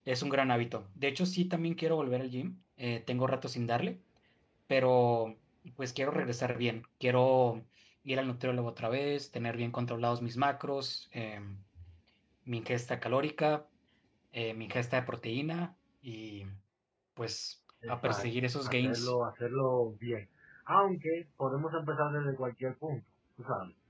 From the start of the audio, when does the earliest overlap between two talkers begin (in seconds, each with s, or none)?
17.9 s